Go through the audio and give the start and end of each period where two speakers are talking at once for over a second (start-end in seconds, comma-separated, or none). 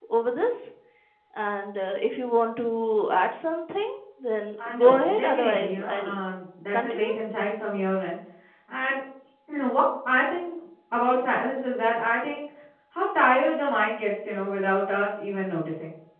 4.7-6.1